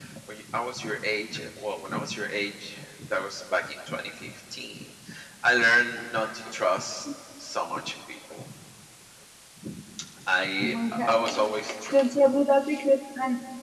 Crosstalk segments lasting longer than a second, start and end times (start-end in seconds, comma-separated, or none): 10.6-11.9